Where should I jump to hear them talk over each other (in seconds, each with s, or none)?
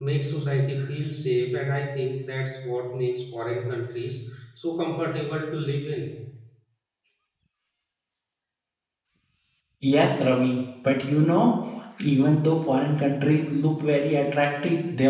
none